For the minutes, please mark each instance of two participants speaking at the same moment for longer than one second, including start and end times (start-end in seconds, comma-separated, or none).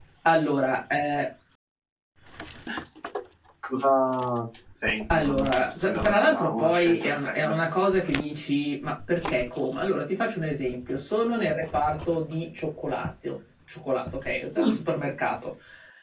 5.1-7.6